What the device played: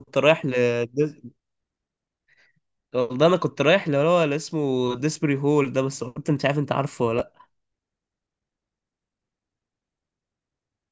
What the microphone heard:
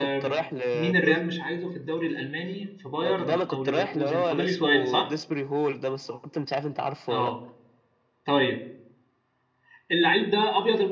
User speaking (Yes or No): Yes